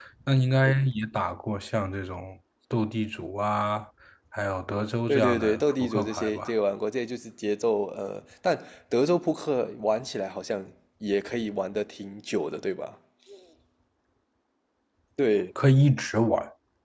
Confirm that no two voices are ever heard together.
No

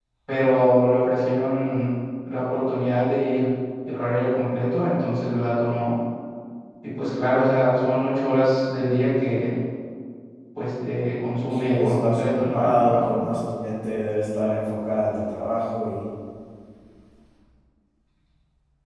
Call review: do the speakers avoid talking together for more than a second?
No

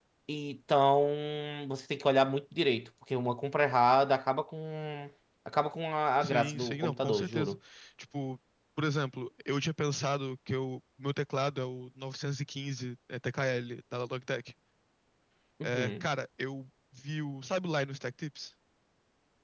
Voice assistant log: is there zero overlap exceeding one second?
No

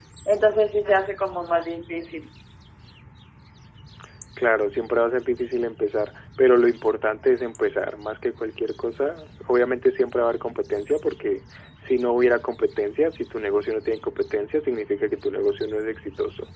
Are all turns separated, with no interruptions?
Yes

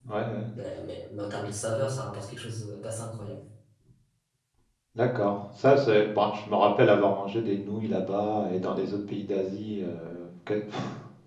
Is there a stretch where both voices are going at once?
No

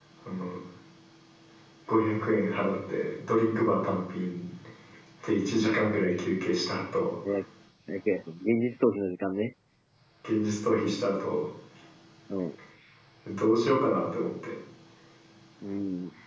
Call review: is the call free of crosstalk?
Yes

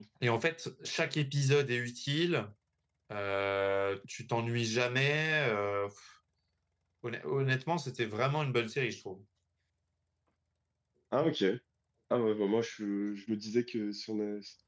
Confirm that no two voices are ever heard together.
Yes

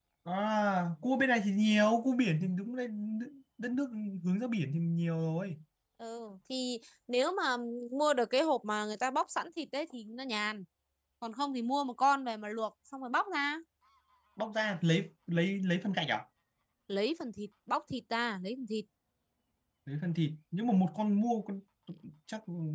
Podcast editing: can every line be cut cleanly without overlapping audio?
Yes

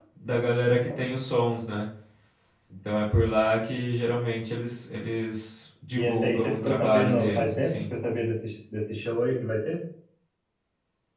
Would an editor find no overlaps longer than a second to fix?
No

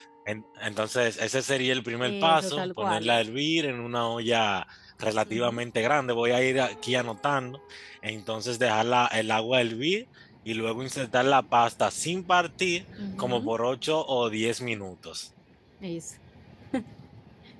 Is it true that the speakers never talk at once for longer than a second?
No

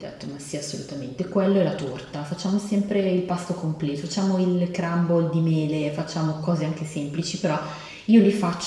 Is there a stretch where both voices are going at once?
No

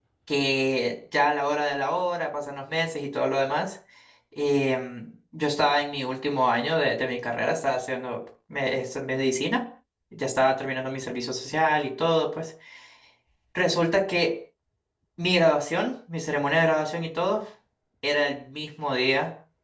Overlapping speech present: No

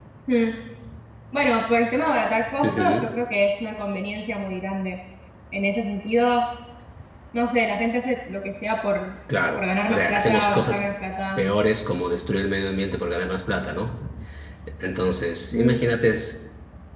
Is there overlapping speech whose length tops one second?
Yes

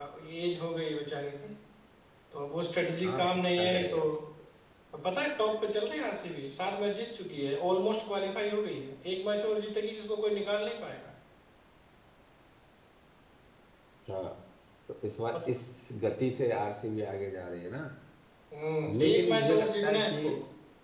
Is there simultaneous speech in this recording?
Yes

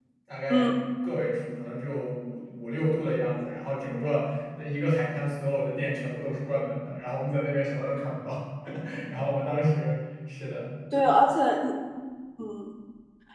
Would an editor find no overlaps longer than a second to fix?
Yes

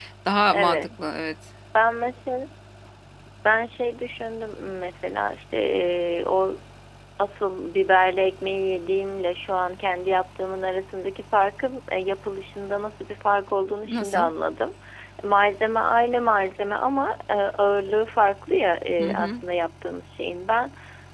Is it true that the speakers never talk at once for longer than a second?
Yes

